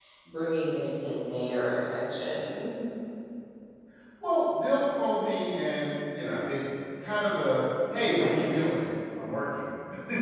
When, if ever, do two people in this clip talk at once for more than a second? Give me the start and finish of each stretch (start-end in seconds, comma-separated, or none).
none